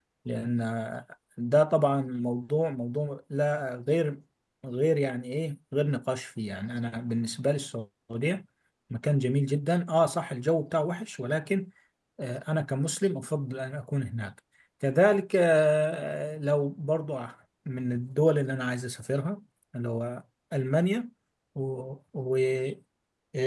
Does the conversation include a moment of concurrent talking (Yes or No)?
No